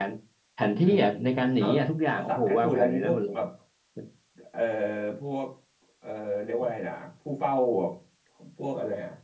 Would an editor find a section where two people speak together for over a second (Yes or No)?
Yes